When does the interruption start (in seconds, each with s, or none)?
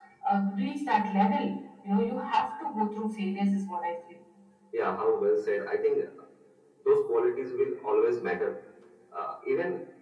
none